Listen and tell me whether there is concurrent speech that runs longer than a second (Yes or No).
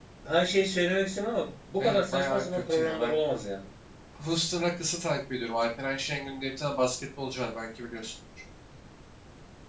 Yes